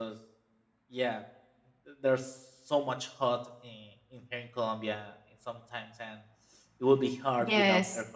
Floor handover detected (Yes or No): Yes